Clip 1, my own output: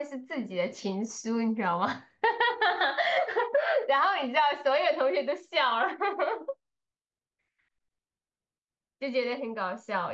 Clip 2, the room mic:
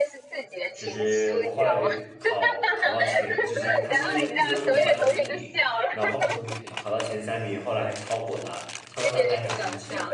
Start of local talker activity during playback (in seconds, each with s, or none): 0.7 s